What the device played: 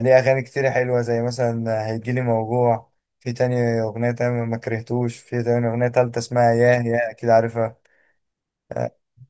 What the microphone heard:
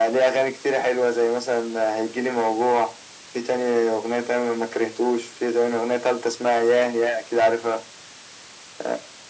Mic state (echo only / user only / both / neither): echo only